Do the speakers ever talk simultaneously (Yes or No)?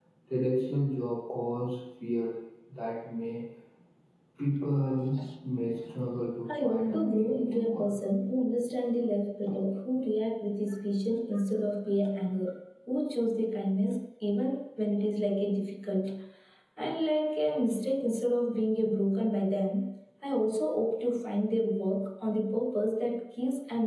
Yes